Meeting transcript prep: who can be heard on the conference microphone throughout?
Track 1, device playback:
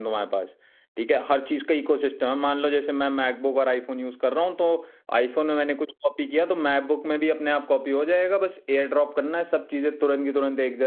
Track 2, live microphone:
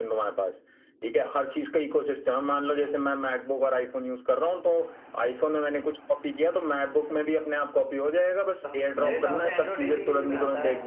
both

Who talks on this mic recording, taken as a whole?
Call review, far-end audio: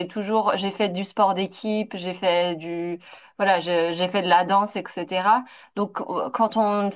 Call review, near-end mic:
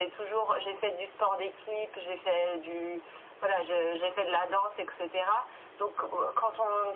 echo only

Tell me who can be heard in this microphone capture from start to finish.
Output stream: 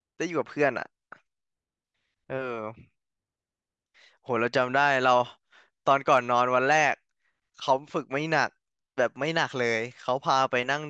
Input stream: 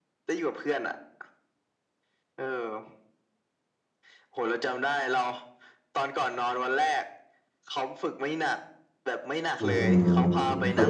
both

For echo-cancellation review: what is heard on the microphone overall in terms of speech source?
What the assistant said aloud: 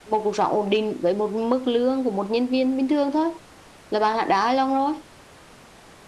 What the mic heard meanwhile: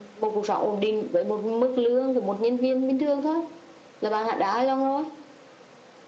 echo only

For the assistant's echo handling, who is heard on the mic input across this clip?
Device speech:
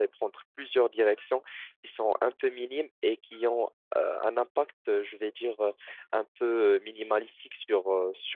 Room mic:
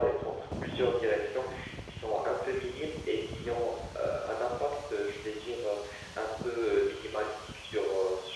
echo only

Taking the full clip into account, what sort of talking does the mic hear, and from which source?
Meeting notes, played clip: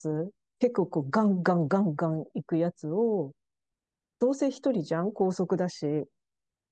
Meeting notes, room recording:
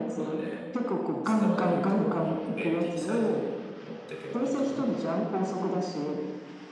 both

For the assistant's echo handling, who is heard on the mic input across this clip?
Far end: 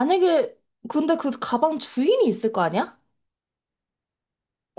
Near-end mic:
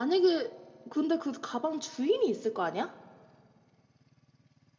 echo only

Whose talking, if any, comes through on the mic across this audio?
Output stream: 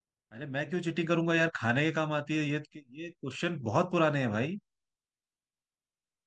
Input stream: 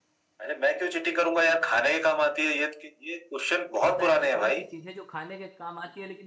both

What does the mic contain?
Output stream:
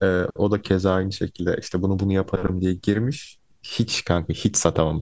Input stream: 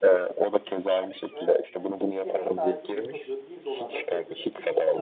both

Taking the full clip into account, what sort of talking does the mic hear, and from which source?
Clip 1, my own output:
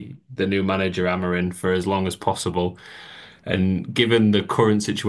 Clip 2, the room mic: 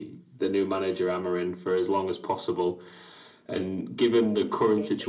both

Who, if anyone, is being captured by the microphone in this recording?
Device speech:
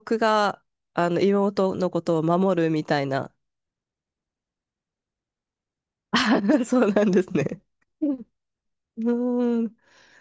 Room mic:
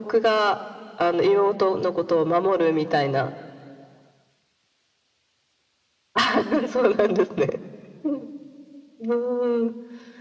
echo only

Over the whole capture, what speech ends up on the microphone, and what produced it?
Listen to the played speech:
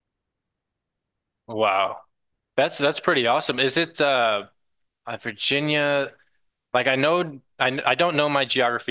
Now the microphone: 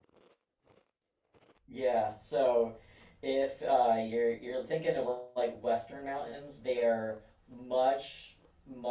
user only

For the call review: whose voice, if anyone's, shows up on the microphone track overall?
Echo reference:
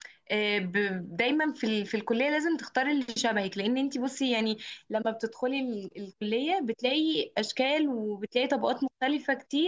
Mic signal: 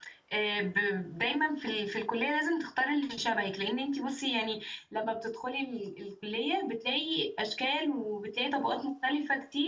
echo only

